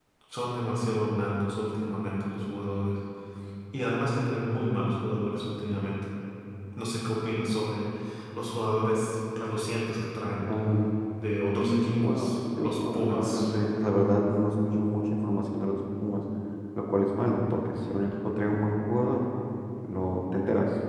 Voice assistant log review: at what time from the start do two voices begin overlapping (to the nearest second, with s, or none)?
12 s